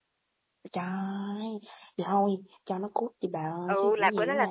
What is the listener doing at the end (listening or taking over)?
taking over